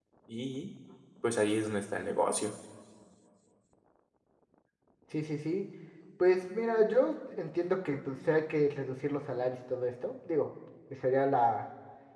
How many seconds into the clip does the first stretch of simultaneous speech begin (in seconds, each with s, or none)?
none